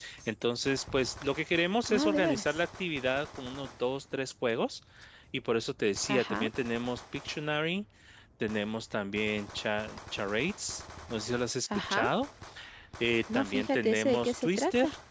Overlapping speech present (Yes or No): Yes